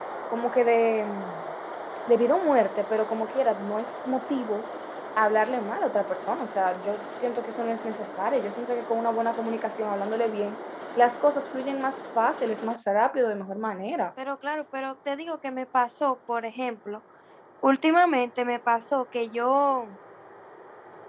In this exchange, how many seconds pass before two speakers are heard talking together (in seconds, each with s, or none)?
none